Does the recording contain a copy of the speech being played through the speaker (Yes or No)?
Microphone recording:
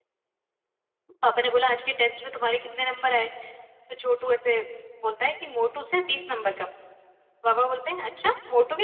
No